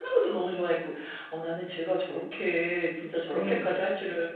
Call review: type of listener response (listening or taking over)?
listening